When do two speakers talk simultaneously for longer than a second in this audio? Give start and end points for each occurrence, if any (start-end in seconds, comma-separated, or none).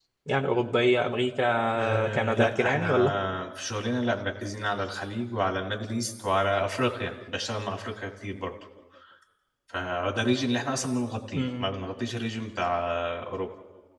1.8-3.1